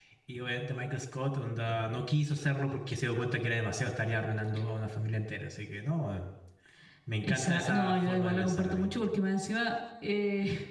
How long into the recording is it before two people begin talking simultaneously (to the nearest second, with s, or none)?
7 s